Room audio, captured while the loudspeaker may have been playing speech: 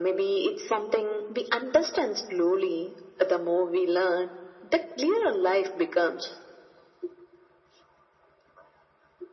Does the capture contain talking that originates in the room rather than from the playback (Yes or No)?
No